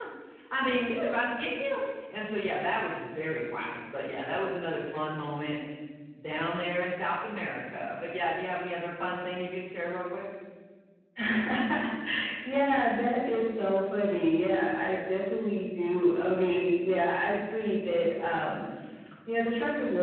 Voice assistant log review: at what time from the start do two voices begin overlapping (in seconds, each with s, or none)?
none